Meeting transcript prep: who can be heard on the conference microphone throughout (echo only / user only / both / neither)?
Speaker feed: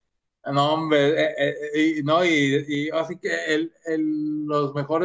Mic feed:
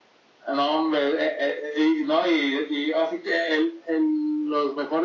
echo only